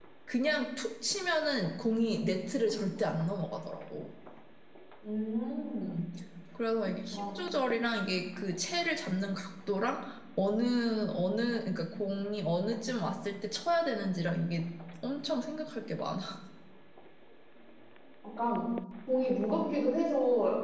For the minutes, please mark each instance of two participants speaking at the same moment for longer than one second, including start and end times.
none

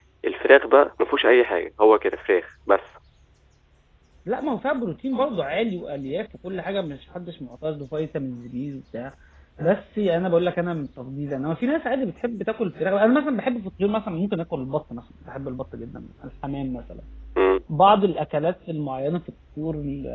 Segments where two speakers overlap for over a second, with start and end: none

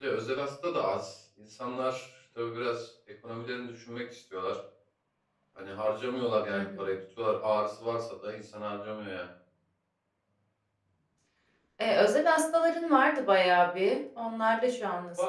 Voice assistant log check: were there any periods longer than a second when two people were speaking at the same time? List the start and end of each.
none

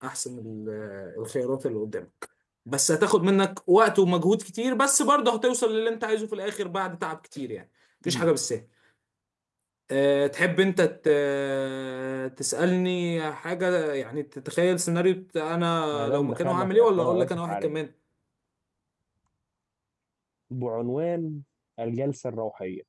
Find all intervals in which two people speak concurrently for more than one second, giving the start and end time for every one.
15.9-17.8

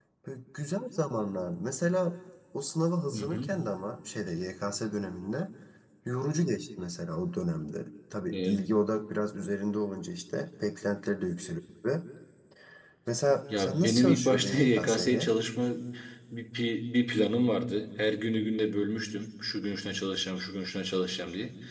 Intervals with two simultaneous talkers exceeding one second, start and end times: 13.6-15.3

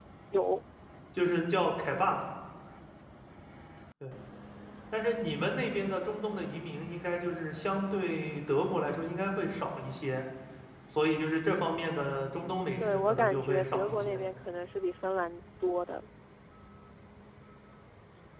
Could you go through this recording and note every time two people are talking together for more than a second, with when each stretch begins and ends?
12.8-14.2

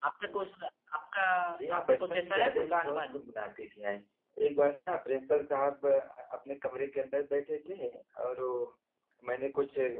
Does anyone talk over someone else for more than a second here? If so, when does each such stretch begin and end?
1.8-3.2

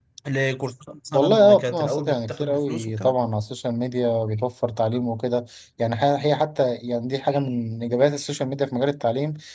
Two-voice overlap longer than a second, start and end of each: 1.1-3.1

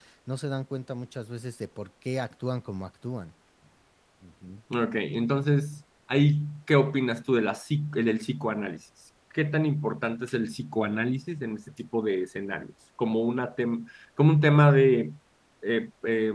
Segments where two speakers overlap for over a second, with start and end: none

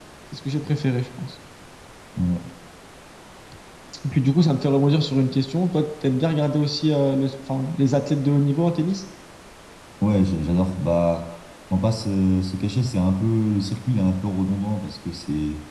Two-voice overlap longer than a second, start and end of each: none

